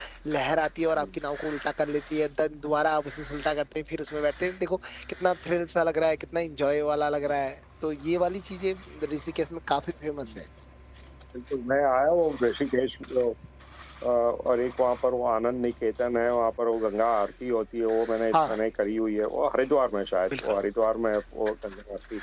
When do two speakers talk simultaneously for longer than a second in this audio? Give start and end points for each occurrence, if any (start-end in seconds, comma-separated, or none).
none